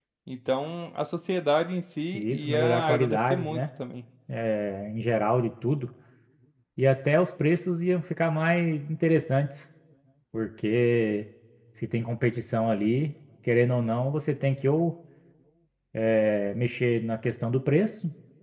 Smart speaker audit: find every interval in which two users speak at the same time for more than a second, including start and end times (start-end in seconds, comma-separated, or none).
2.1-3.6